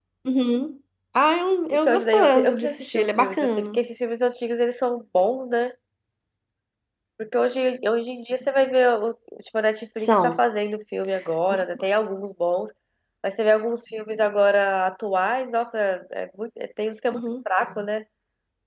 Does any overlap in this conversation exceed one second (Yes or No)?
Yes